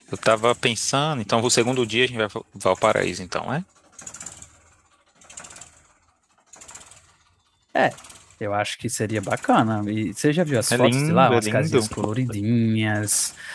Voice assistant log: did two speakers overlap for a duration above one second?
Yes, from 10.7 s

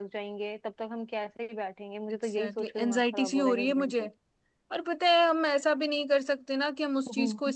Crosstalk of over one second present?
Yes, from 2.1 s

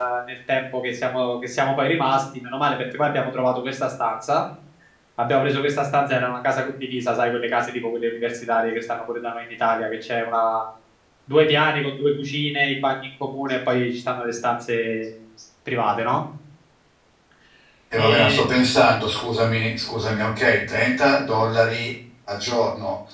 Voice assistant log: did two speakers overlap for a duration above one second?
No

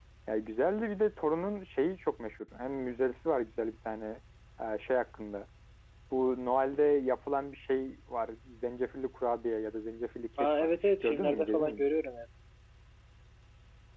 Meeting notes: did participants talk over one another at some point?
Yes, from 10.4 s

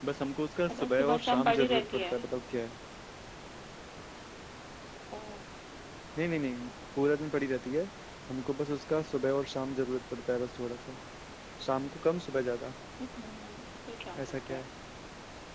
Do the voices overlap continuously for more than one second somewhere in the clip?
Yes, from 0.7 s

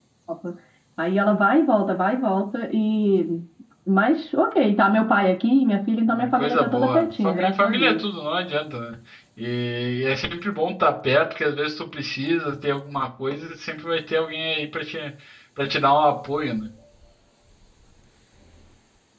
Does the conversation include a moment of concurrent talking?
Yes, from 6.1 s

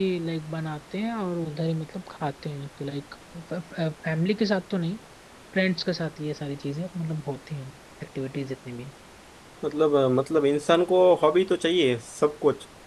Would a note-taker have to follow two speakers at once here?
No

